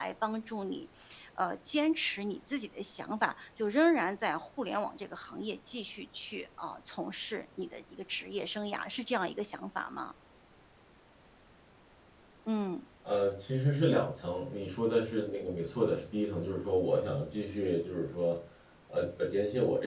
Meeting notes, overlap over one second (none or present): none